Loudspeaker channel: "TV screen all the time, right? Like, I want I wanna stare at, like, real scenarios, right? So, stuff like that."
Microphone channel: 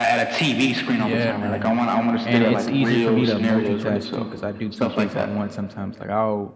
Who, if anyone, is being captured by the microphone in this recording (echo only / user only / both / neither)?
both